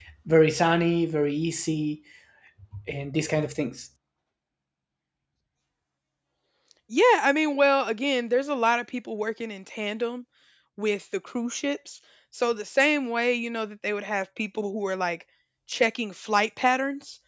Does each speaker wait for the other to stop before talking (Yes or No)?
Yes